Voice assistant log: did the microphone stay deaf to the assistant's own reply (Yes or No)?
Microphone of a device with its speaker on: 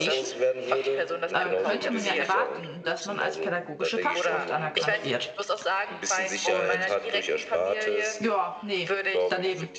No